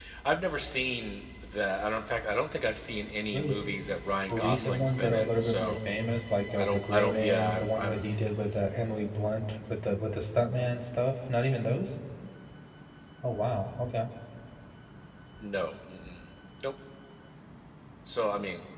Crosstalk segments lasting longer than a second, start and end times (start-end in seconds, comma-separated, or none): 4.3-5.8, 6.6-8.0